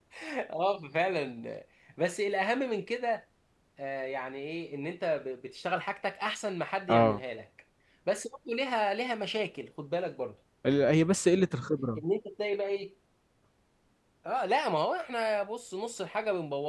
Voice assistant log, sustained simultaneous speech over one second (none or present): none